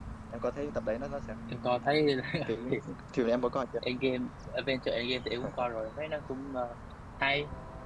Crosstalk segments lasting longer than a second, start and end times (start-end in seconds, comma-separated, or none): none